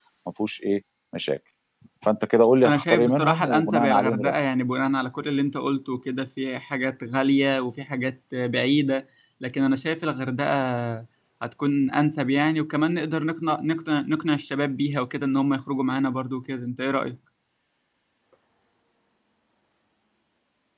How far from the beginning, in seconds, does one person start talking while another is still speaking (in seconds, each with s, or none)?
2.6 s